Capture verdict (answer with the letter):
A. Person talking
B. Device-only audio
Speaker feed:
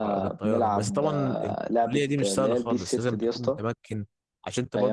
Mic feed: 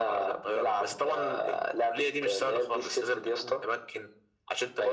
B